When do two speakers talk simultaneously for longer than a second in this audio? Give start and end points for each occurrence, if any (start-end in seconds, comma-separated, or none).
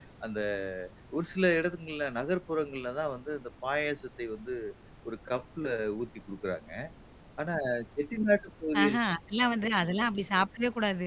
none